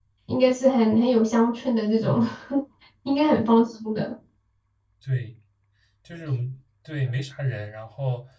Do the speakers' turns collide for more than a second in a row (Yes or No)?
No